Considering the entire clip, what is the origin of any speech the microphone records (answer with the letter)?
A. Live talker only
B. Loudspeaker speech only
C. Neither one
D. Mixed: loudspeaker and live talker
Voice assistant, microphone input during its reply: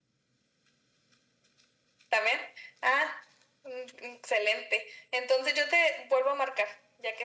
B